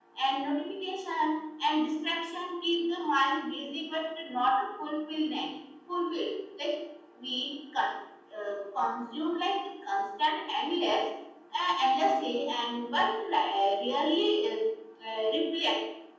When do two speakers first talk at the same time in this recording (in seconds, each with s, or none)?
none